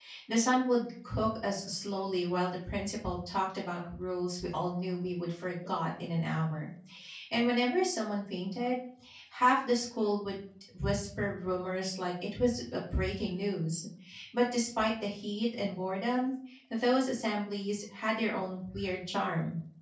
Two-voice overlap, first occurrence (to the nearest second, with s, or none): none